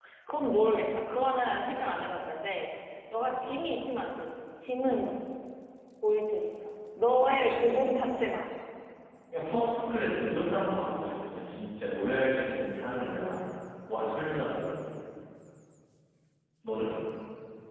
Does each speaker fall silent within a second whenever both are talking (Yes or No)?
Yes